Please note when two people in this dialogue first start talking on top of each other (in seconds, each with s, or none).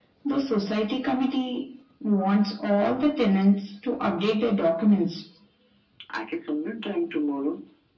none